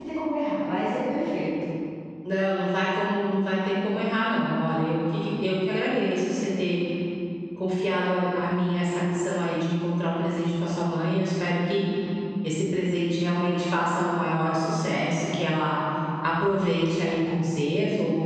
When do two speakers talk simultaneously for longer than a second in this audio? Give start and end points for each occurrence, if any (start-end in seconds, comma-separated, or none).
none